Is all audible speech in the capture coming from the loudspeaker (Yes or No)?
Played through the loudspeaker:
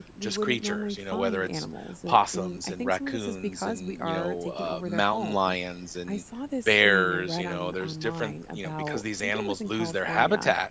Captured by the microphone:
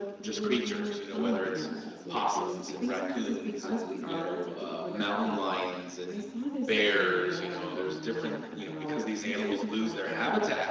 Yes